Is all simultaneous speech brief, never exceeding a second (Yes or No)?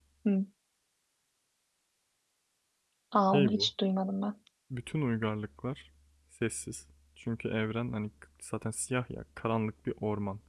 Yes